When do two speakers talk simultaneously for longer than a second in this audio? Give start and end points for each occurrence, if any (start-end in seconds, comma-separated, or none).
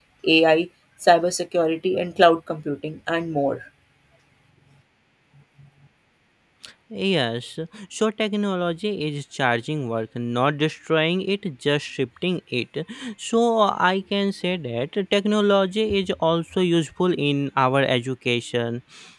none